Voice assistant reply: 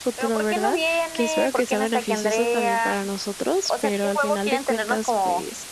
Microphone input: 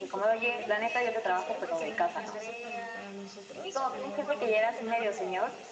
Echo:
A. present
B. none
A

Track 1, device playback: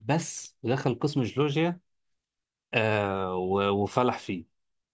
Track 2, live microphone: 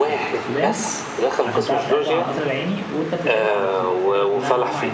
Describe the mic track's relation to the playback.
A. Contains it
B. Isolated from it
A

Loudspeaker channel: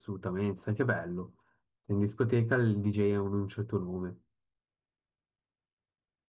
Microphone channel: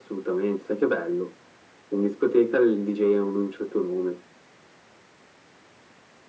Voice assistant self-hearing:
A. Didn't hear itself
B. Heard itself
B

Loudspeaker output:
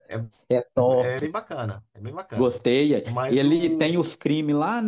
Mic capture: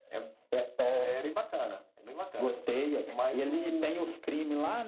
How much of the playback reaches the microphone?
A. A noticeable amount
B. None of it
A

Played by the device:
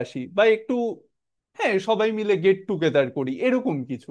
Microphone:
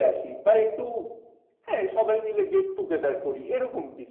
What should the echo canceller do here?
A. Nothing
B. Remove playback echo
B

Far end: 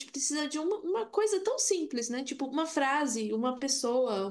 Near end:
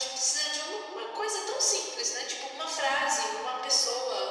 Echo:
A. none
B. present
B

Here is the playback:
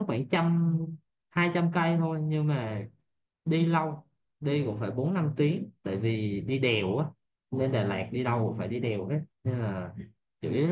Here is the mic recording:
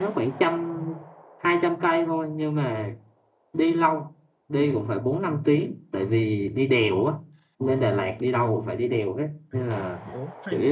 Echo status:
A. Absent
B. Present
B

